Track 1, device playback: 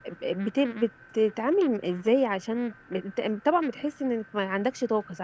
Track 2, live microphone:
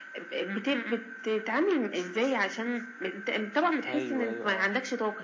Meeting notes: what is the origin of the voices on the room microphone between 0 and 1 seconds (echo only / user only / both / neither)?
echo only